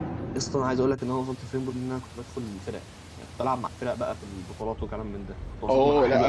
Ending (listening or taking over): taking over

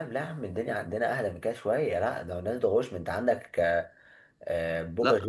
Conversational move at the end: listening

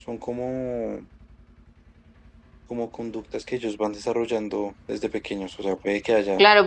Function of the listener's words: taking over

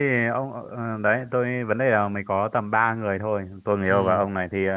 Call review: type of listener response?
listening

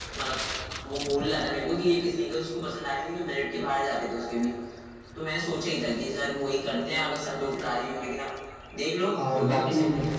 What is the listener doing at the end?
taking over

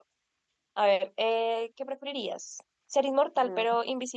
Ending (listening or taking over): listening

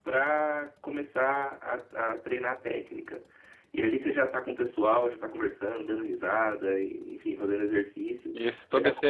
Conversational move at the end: taking over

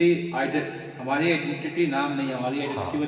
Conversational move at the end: taking over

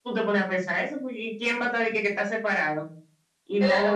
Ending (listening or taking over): taking over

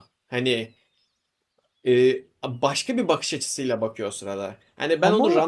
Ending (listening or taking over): listening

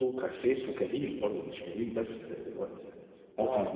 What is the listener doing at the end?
listening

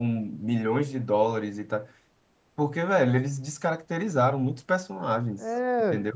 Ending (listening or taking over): taking over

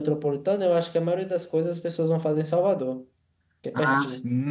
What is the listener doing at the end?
taking over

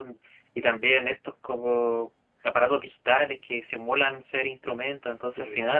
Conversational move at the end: listening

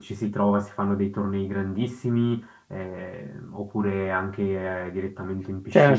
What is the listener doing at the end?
taking over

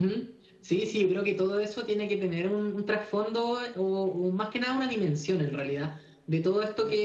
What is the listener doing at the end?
listening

